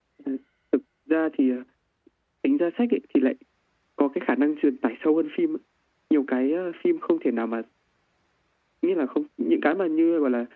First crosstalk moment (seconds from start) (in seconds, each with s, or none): none